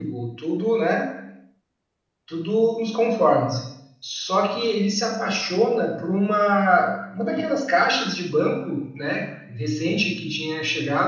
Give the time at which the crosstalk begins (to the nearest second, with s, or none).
none